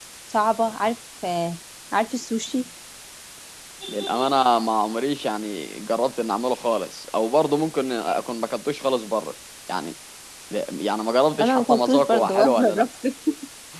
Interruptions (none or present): present